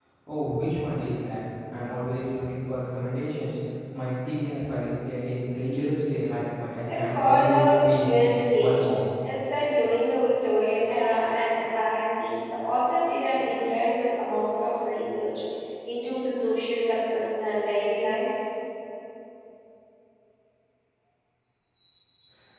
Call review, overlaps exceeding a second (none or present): present